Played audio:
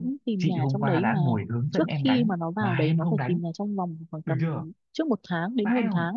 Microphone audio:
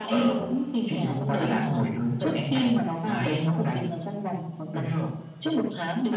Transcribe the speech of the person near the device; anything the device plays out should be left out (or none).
none